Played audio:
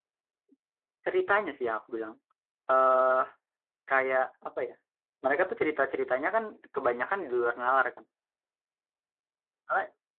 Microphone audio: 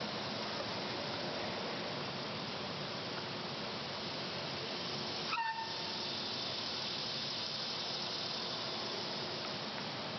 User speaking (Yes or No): No